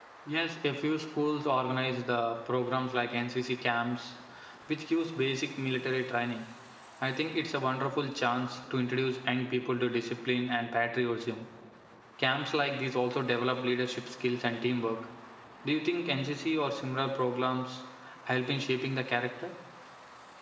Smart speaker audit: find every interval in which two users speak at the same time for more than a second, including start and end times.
none

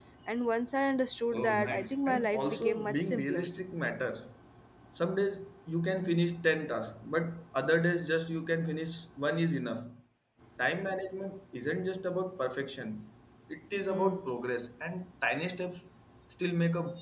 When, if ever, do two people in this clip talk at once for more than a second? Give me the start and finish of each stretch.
1.3-3.5

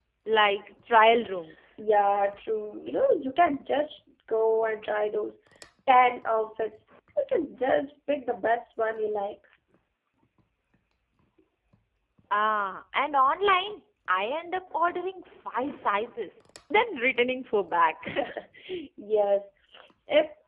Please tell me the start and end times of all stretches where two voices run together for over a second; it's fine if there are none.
none

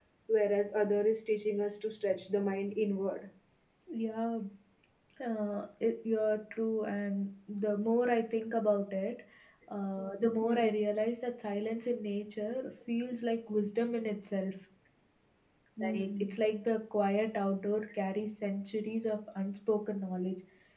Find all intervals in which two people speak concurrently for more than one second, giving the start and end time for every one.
none

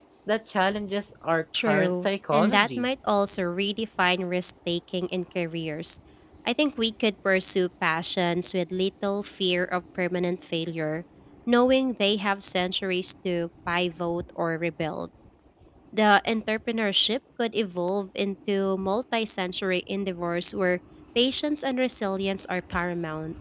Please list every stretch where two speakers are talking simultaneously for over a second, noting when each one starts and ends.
1.7-2.9

